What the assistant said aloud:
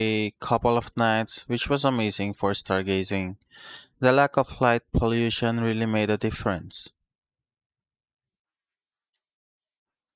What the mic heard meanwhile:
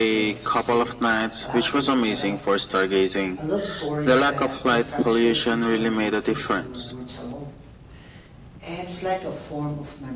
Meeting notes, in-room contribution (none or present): present